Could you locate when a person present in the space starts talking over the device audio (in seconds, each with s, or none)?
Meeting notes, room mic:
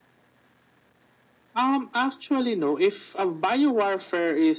none